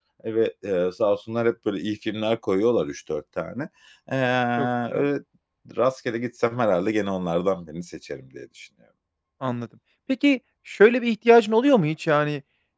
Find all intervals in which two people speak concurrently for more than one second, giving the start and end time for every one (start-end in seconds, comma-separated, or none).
none